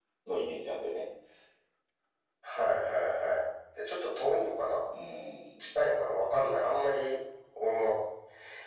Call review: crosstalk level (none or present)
none